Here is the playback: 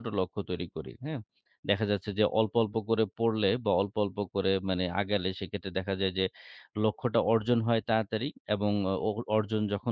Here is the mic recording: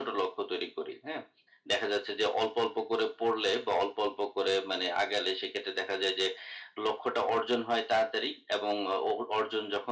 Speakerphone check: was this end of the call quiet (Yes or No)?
Yes